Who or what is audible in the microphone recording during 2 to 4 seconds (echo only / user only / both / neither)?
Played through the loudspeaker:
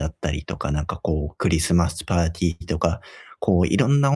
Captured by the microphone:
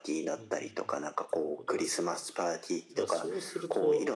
both